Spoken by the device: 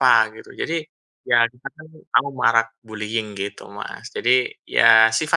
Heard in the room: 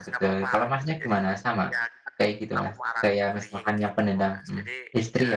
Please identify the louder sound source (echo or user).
user